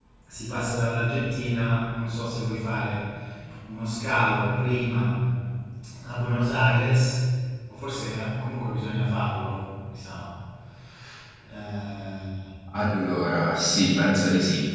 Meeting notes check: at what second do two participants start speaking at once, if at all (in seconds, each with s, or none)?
none